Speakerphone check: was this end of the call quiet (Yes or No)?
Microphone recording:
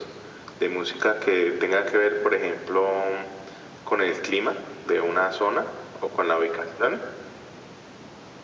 Yes